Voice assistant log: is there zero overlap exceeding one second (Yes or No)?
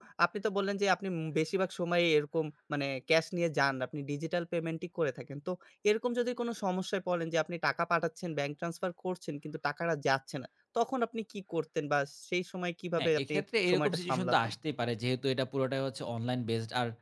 No